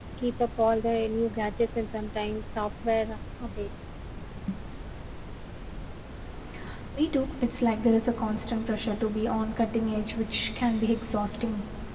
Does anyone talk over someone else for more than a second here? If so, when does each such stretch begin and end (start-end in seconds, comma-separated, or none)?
none